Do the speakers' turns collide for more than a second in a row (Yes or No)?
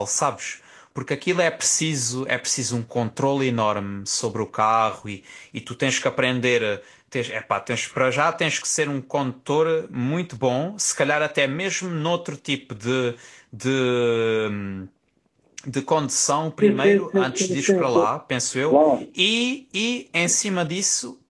Yes